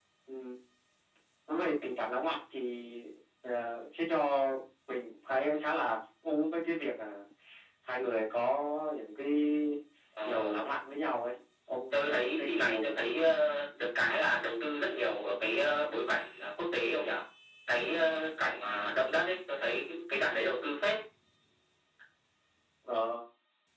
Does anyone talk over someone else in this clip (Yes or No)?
Yes